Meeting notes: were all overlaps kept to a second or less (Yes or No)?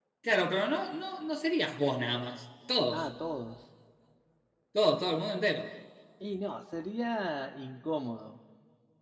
Yes